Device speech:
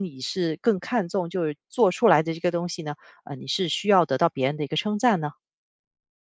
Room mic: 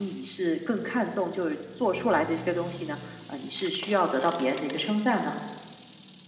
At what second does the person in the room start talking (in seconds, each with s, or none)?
none